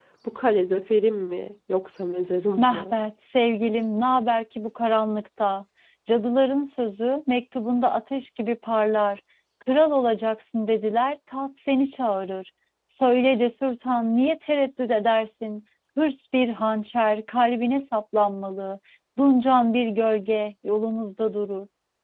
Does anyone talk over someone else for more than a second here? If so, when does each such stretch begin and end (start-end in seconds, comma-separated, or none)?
none